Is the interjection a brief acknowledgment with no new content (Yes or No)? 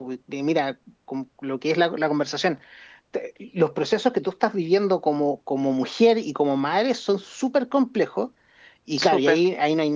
Yes